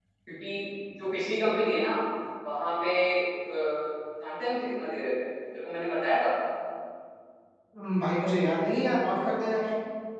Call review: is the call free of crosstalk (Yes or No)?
Yes